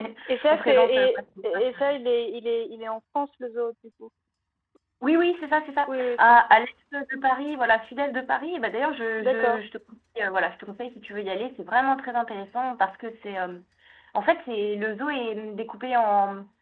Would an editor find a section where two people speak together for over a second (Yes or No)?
Yes